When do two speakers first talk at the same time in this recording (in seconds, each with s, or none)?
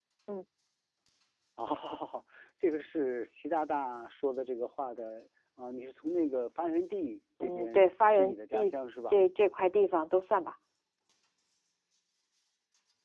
7.4 s